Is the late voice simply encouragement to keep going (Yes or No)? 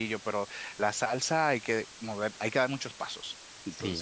No